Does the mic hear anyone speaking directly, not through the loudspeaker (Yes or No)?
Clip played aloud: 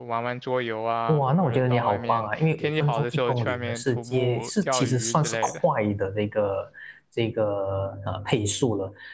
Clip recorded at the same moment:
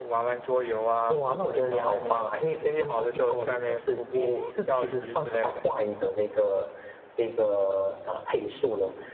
No